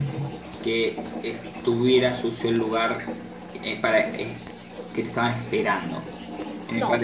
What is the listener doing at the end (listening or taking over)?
taking over